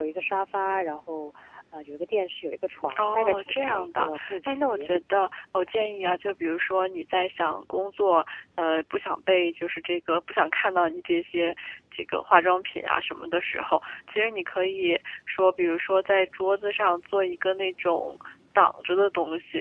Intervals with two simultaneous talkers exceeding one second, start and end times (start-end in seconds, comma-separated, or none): 3.0-4.9